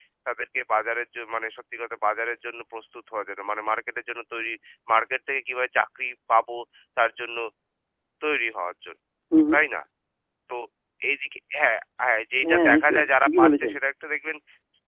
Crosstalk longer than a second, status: present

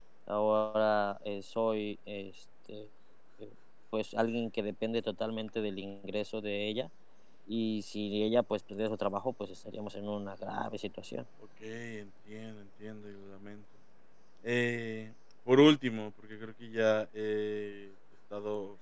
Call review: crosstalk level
none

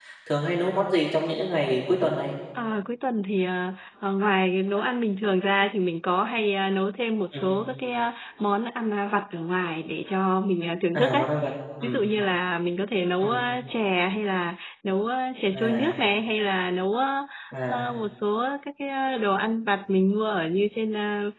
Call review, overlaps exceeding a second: none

